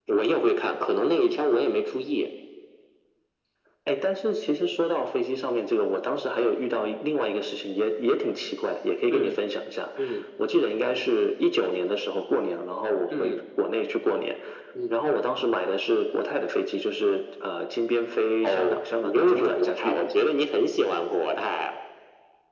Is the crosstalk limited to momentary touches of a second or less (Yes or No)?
No